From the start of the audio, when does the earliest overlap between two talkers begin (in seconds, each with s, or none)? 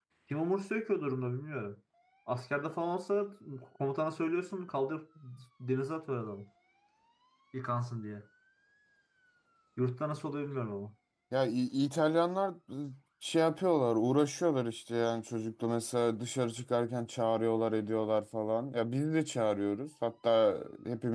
none